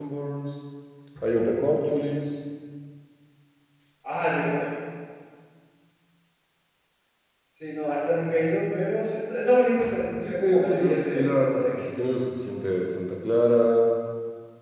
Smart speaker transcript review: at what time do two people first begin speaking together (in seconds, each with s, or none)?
10.2 s